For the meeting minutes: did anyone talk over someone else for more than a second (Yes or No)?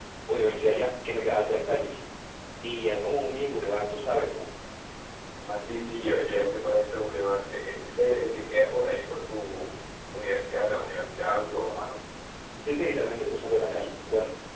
No